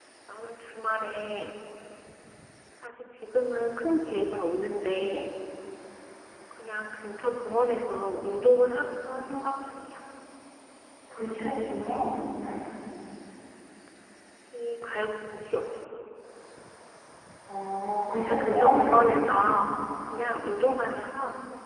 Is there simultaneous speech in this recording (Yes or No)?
Yes